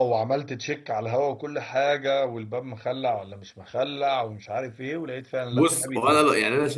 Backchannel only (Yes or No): No